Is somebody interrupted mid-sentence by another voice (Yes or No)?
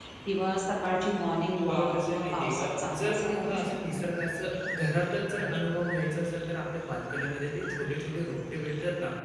Yes